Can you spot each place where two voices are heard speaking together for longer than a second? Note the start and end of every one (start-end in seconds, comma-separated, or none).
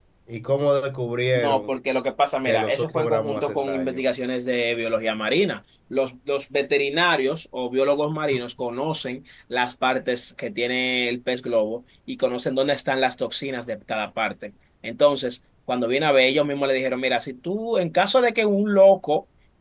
2.4-4.0